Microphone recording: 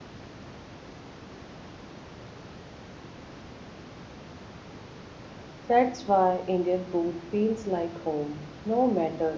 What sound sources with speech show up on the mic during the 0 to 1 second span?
neither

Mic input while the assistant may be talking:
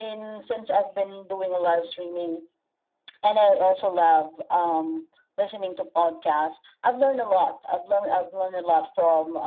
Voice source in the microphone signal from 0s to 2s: echo only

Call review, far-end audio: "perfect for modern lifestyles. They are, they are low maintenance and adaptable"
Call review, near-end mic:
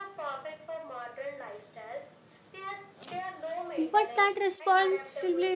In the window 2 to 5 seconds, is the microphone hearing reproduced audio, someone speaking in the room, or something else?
both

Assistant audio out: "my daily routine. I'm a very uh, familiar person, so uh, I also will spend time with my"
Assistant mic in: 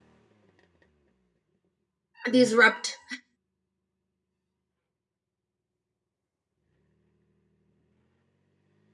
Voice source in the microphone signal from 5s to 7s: neither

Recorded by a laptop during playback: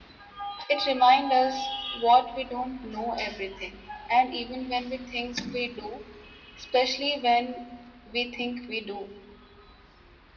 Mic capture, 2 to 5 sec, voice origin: echo only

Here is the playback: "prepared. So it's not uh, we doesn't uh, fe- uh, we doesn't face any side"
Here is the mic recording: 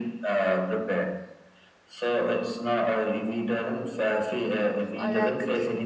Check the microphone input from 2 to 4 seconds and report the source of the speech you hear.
echo only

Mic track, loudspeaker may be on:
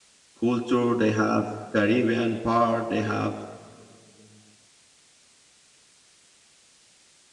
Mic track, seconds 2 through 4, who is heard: user only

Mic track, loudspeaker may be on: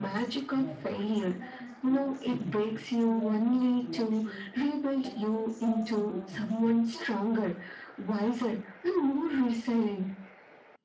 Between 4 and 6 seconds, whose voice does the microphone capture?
both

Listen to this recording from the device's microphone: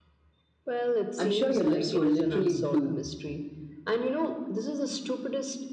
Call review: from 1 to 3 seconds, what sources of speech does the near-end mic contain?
both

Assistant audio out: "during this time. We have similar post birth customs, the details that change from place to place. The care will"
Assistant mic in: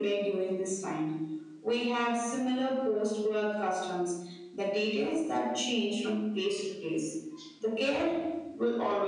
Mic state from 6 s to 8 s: echo only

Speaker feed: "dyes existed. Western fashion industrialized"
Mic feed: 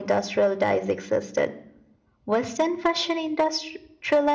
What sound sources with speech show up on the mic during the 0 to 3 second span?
echo only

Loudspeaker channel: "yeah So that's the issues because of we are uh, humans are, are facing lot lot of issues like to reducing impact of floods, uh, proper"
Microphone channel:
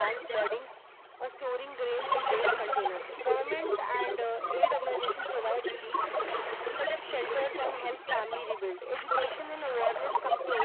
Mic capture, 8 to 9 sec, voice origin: both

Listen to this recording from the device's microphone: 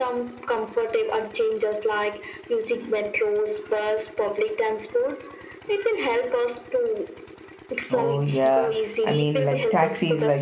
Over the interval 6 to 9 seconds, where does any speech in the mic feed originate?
both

